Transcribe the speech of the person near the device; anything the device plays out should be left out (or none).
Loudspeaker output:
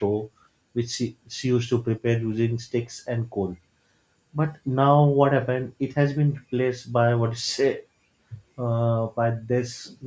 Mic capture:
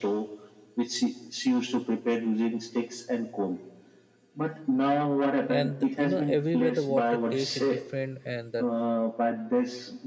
and you know everywhere the water taste is different, and the